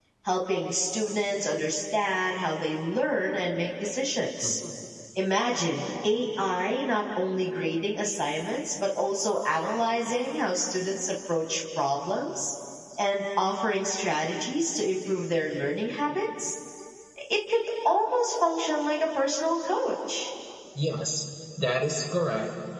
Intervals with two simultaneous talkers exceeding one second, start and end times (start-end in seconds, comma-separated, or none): none